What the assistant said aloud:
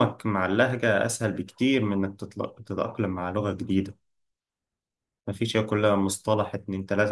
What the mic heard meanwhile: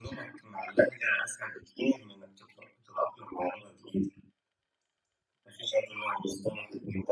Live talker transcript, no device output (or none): none